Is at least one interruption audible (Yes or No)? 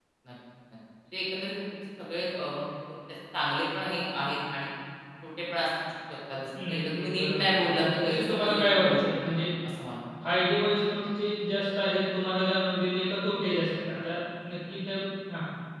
Yes